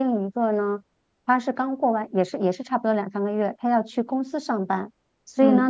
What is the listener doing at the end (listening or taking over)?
listening